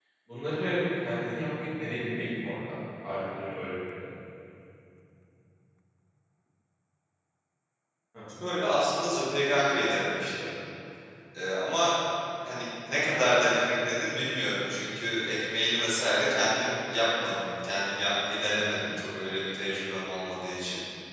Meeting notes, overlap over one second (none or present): none